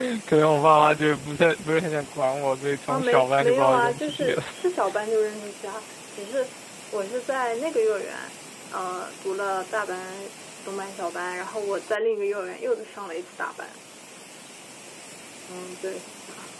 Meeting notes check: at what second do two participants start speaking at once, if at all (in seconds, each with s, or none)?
2.9 s